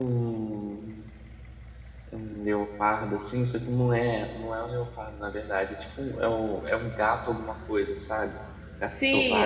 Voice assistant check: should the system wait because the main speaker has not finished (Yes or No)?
No